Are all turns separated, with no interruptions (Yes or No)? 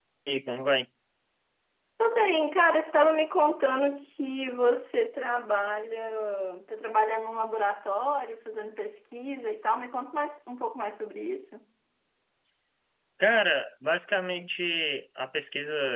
Yes